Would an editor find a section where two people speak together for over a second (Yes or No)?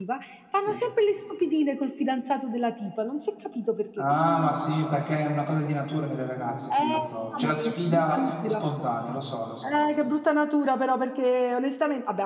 Yes